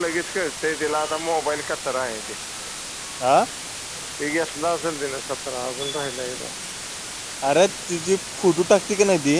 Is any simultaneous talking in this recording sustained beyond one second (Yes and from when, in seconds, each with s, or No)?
No